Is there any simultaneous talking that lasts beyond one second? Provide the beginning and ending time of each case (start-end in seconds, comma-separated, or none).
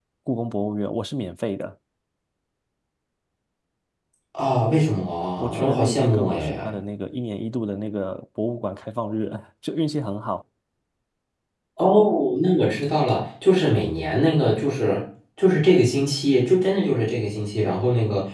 5.4-6.8